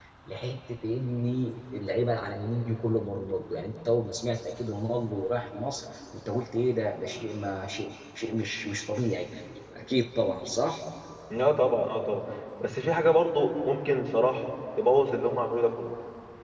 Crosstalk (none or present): none